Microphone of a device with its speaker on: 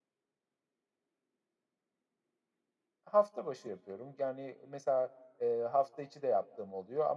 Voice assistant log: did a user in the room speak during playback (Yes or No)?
Yes